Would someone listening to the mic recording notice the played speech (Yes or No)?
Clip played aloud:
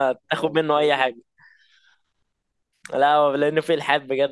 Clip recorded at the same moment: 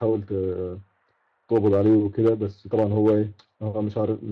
No